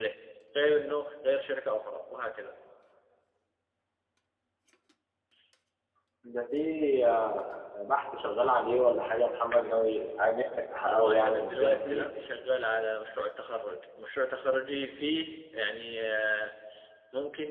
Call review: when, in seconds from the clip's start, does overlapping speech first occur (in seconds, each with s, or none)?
10.8 s